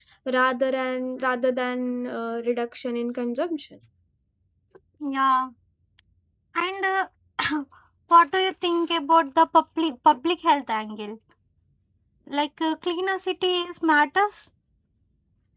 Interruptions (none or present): none